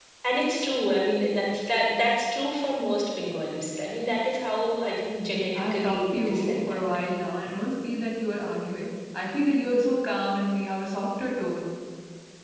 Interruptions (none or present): present